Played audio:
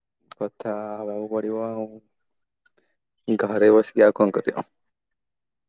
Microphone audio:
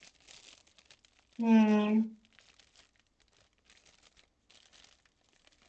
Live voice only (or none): ହୁଁ।